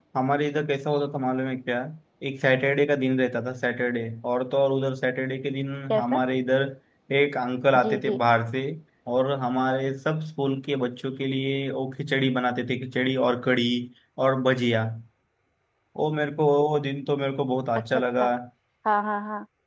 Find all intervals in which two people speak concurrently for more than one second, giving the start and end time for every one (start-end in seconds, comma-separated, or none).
none